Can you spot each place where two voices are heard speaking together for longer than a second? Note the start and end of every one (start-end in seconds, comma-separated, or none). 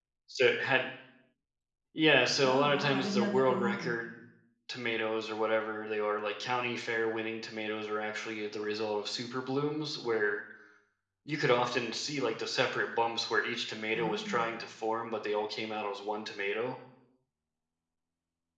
2.4-3.9